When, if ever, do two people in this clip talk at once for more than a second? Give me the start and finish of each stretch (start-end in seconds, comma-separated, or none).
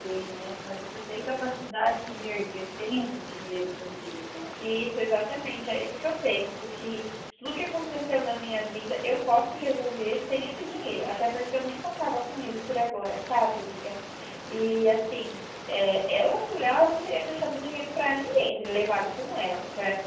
none